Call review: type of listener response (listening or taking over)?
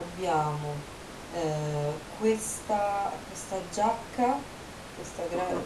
listening